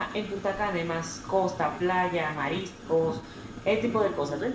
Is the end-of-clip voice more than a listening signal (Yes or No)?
Yes